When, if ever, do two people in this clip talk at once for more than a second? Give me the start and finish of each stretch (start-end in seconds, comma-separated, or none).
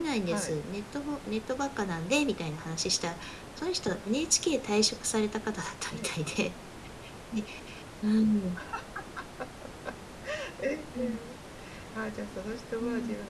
none